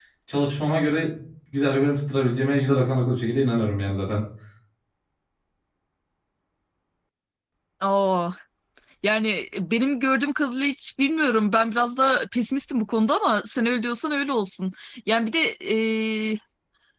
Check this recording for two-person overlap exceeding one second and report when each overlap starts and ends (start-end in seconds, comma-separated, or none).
none